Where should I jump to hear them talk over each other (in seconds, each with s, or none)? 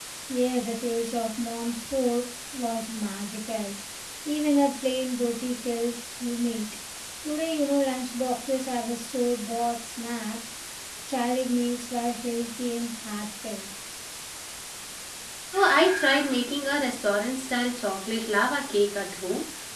none